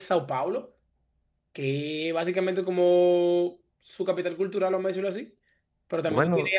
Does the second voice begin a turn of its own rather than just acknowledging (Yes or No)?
No